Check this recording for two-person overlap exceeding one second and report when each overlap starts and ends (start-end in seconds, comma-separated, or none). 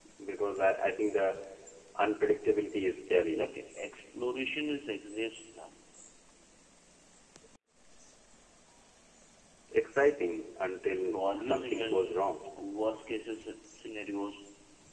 11.0-12.2